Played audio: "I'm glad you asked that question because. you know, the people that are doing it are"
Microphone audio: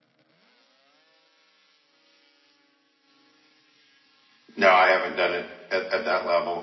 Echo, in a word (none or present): none